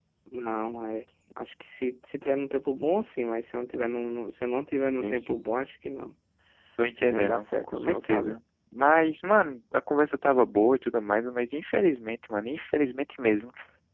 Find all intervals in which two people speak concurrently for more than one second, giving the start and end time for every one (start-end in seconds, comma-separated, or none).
7.1-8.3